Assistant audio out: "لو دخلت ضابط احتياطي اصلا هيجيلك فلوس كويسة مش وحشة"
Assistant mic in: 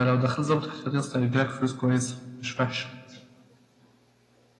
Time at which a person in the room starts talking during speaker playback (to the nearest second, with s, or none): none